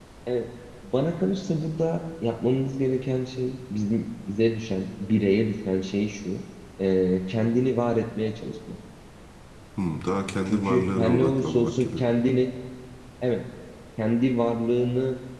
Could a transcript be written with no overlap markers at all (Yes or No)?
No